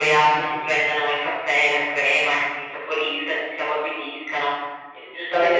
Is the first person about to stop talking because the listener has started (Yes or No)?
No